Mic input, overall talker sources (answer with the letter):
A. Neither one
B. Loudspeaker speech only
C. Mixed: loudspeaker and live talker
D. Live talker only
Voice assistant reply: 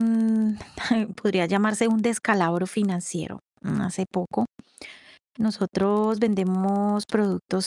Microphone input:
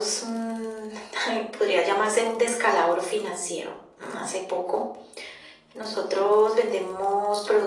B